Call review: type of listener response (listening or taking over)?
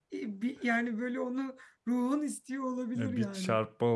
taking over